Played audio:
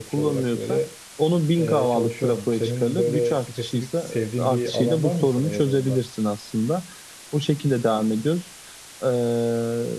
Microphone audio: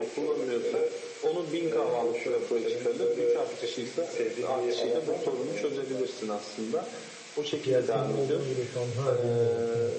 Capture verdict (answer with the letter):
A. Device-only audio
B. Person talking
B